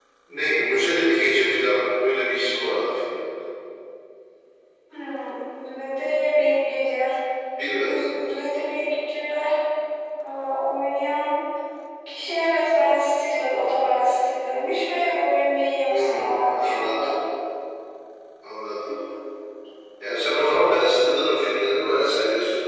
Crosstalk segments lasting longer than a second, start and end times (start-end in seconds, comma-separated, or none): 15.8-17.1